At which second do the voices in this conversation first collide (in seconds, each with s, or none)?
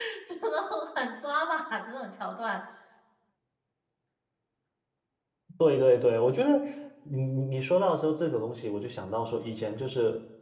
none